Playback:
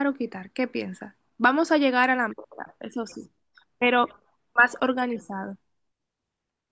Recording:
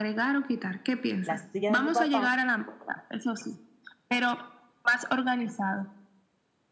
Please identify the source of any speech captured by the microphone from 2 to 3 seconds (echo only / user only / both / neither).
both